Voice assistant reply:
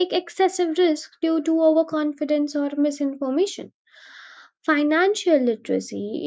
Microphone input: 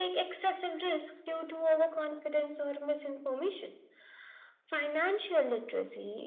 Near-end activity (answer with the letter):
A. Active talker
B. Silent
B